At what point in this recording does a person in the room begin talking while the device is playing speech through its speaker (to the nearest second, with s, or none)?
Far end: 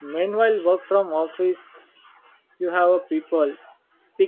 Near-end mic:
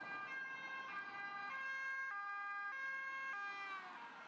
none